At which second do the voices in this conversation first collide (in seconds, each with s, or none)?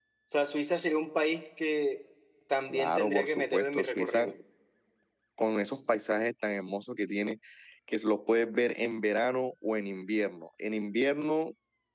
2.7 s